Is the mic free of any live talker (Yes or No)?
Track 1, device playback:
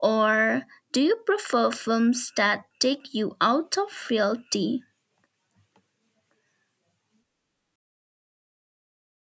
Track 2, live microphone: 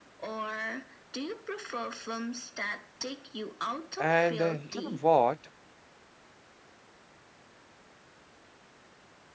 No